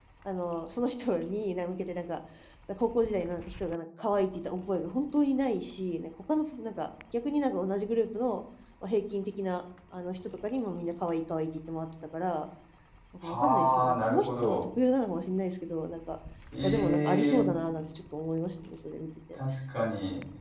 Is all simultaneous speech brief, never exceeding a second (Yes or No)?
No